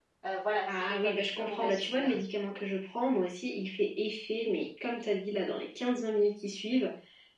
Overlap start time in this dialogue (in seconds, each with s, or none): 0.7 s